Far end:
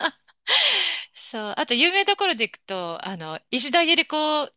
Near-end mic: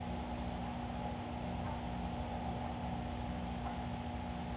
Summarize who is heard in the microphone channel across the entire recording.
neither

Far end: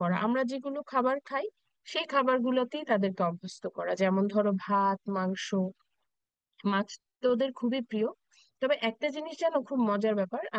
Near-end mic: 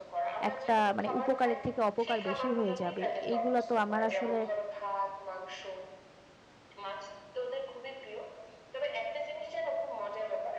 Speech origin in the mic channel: both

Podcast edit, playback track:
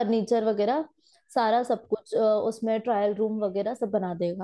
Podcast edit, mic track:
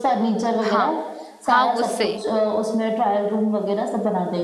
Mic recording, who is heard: both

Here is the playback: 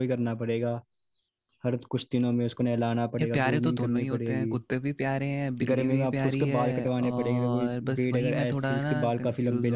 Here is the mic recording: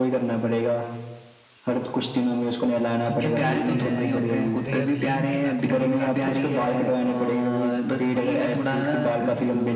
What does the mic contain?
both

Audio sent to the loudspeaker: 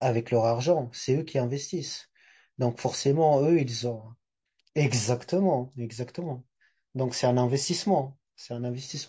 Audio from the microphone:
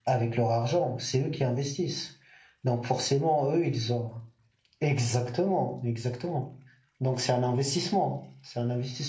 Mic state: echo only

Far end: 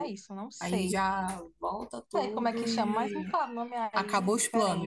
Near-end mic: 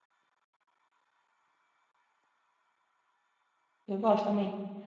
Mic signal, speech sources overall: user only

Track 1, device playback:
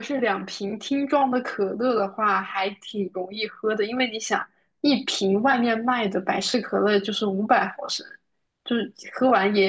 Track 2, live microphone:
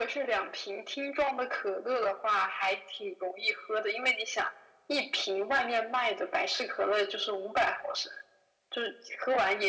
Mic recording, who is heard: echo only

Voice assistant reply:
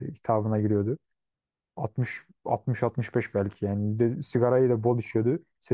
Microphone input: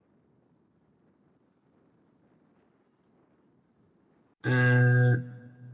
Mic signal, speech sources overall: user only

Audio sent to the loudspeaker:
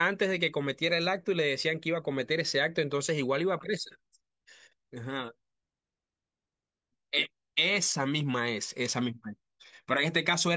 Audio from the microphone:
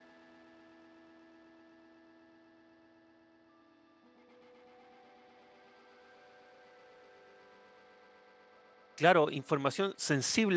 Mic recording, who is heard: user only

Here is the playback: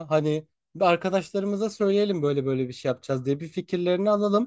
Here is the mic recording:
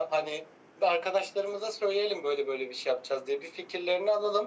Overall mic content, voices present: echo only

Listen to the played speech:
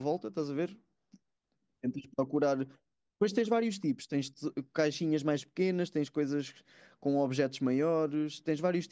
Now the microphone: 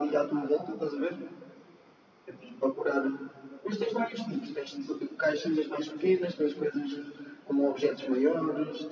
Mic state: echo only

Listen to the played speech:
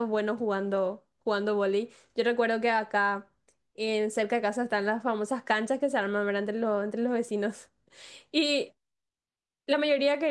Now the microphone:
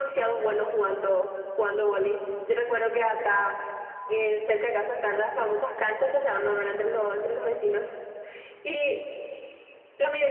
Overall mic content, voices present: echo only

